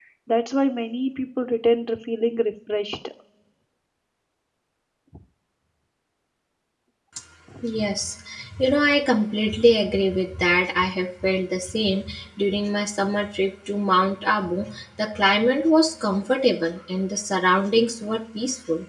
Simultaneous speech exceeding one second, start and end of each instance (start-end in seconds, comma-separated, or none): none